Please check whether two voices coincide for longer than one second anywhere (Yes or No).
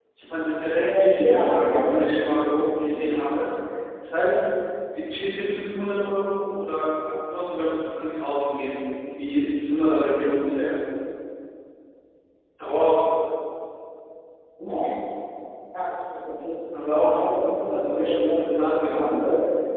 Yes